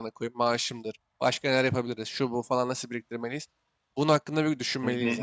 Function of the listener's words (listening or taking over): taking over